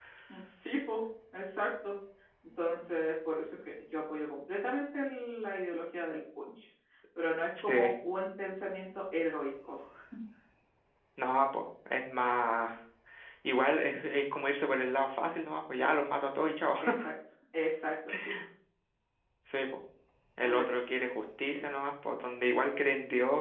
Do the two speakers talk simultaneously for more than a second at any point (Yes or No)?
No